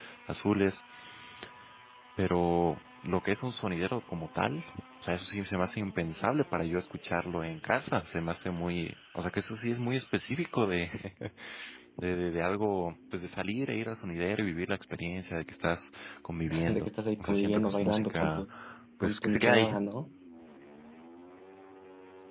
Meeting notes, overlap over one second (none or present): present